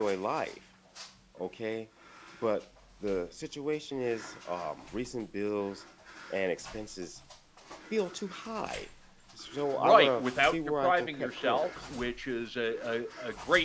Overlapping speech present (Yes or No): Yes